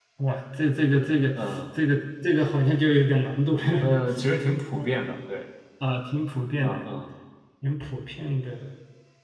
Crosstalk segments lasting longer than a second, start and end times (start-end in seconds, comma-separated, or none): none